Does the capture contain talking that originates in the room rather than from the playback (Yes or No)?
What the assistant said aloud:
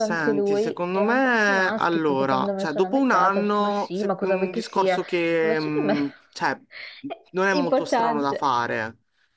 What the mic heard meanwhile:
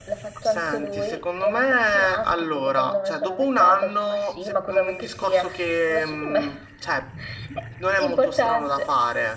No